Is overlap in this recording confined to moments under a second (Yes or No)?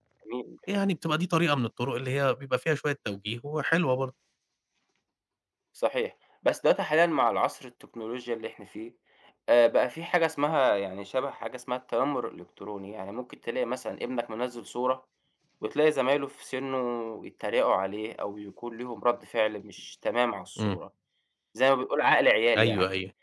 Yes